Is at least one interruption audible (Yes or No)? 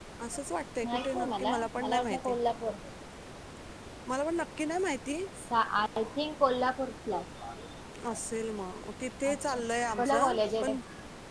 Yes